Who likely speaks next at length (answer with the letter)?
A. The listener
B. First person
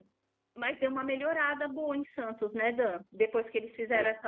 B